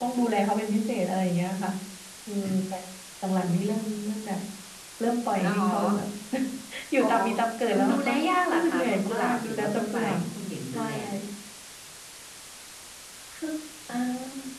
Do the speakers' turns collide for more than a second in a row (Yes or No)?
Yes